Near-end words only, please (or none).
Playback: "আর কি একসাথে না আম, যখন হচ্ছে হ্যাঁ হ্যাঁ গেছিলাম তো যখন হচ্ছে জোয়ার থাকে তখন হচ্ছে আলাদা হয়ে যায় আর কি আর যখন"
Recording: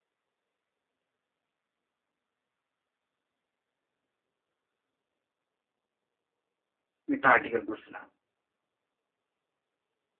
আমি একটা আর্টিকেল পড়ছিলাম